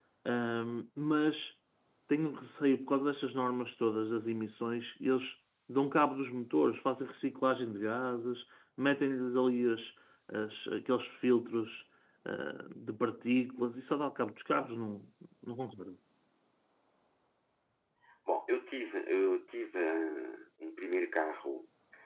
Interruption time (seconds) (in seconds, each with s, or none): none